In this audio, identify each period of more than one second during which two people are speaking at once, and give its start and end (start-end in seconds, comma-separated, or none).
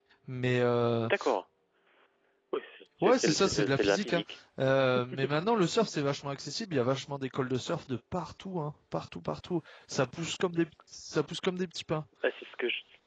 3.0-4.2